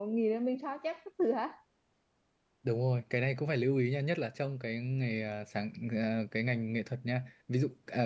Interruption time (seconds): none

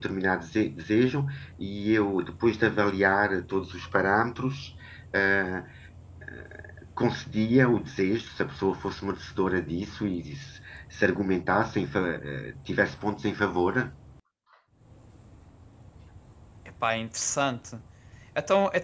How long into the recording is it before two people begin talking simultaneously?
none

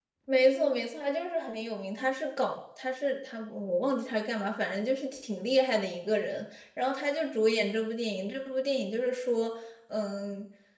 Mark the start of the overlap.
none

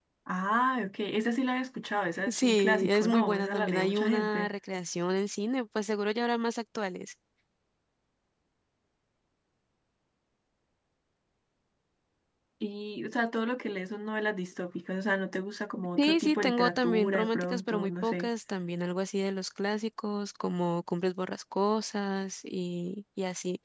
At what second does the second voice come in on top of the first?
2 s

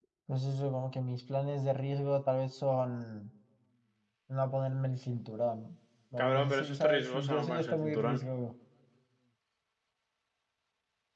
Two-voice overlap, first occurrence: 6 s

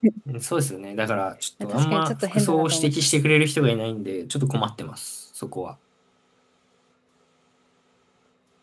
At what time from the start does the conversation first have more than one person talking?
2 s

